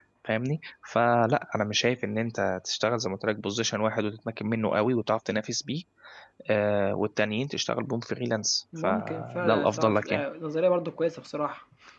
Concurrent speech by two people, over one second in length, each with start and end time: 8.8-10.2

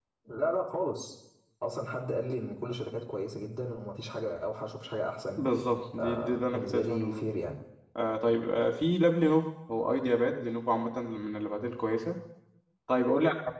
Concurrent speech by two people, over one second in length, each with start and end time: 6.0-7.2

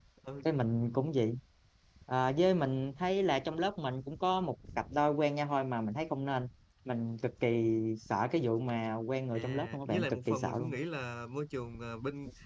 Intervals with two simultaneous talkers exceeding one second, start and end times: 9.4-10.7

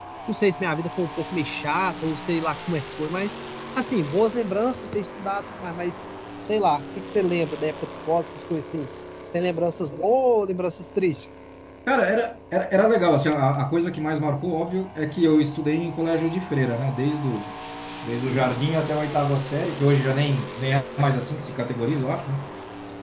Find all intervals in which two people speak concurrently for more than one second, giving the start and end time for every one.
none

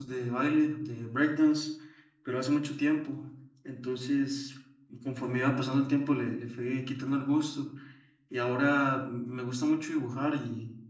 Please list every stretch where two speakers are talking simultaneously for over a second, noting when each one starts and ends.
none

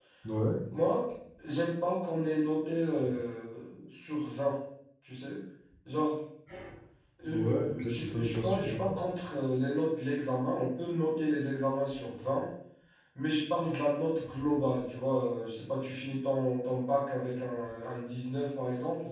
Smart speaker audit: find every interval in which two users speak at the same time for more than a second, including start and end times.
7.3-9.0

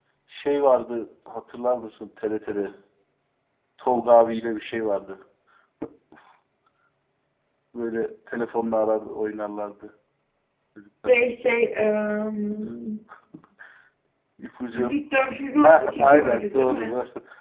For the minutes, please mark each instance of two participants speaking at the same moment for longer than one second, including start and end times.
15.6-16.9

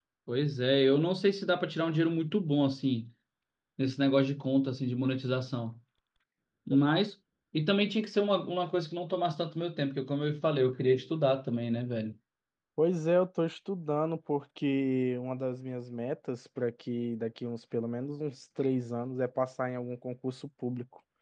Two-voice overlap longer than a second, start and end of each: none

